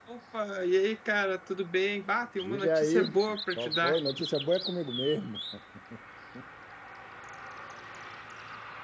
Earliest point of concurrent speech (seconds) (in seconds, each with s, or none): 2.4 s